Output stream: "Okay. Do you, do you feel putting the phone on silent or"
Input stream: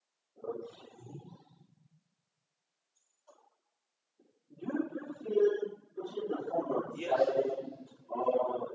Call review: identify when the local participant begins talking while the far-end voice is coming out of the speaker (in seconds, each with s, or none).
6.9 s